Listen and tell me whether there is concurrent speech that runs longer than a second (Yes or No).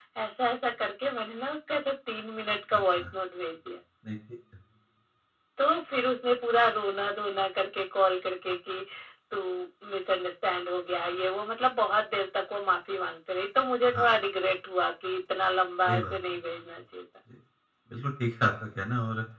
No